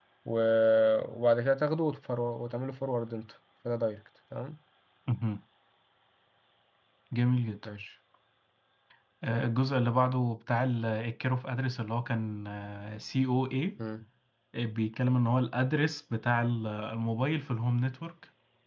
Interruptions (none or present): none